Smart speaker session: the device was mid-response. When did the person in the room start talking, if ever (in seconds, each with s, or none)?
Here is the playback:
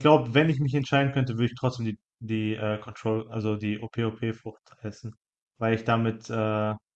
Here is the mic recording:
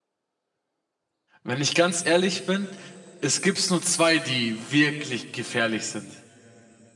1.4 s